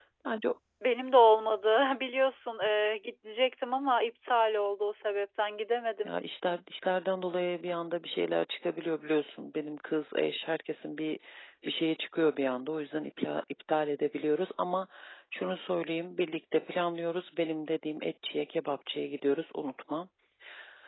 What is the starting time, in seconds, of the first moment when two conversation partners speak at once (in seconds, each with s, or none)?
none